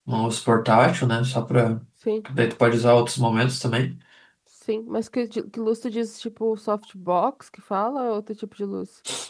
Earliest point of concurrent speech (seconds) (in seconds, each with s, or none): none